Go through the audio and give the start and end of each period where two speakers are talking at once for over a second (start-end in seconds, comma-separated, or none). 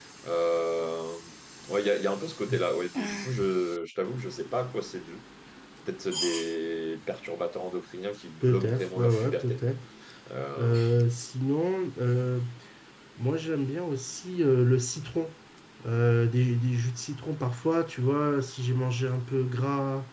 8.4-9.6